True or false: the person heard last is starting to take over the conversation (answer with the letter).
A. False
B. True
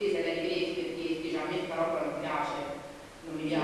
B